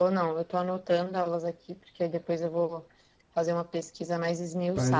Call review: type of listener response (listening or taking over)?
taking over